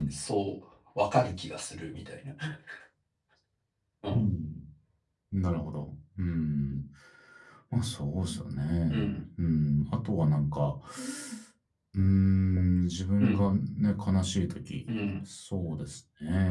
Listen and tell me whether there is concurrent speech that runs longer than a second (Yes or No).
No